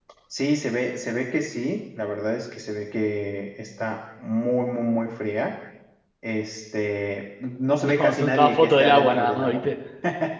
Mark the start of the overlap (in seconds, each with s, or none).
7.8 s